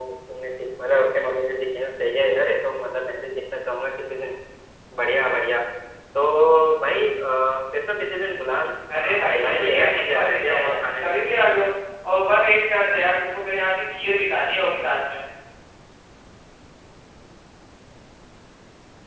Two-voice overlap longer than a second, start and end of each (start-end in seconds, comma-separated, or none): 9.0-11.0